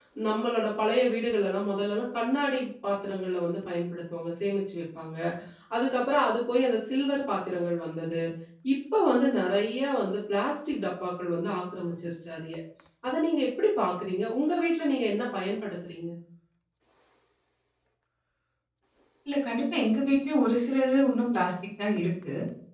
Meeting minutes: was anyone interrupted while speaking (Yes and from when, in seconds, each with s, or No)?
No